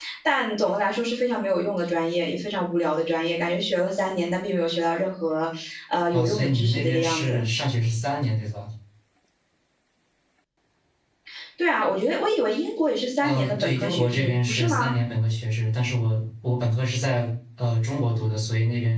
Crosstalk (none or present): present